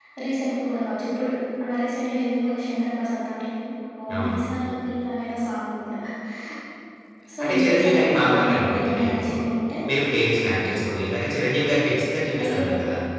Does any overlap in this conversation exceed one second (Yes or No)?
Yes